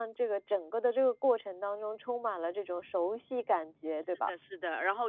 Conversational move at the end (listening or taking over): taking over